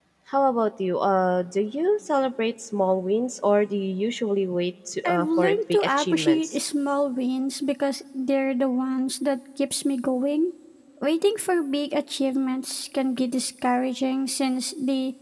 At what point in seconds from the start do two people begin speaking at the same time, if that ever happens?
5.0 s

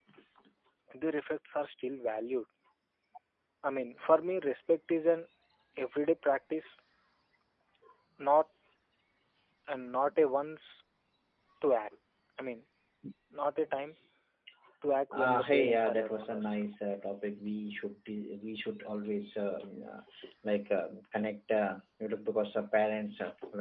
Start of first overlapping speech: 15.1 s

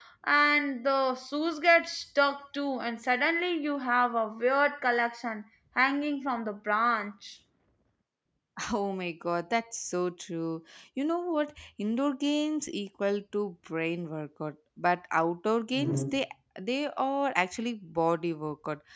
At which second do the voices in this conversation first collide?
none

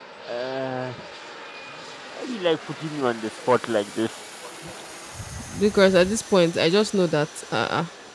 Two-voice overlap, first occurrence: none

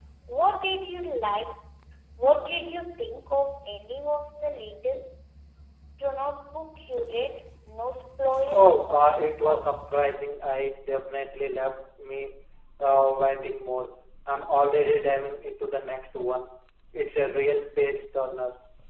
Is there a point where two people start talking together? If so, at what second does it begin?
8.6 s

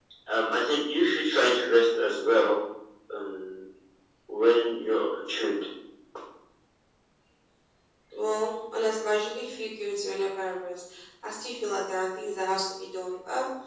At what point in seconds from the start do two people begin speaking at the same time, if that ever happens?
none

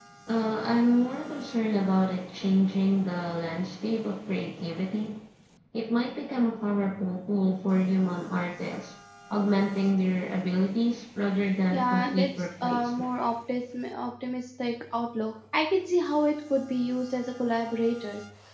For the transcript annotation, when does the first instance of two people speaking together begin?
11.7 s

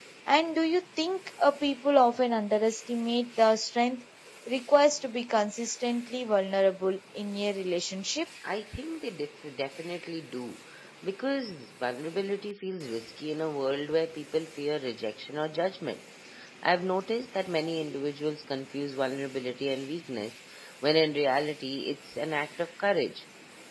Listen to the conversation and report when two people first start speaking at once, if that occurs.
none

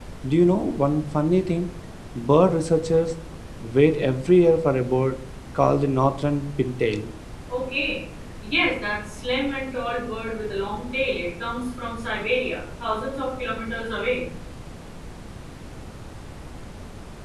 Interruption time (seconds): none

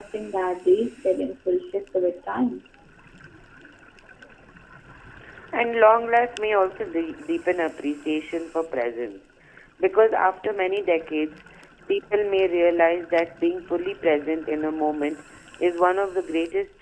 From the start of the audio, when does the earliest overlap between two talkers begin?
none

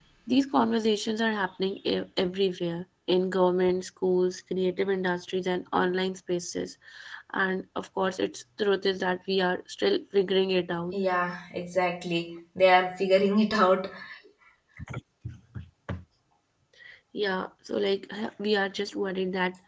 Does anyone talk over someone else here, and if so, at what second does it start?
none

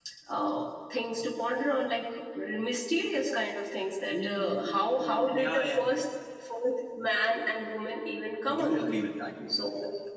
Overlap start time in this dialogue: 4.1 s

